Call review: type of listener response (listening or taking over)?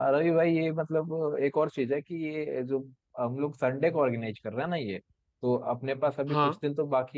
listening